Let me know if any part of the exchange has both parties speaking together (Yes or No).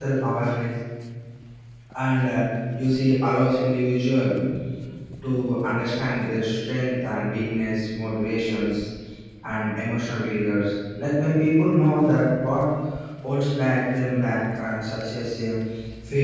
No